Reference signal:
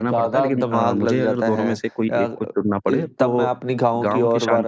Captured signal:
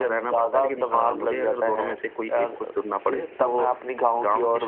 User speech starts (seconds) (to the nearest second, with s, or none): none